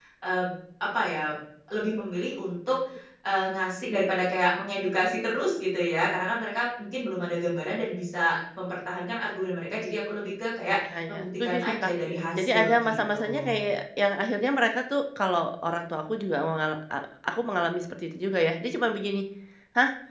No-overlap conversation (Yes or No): No